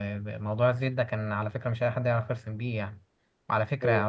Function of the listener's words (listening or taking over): listening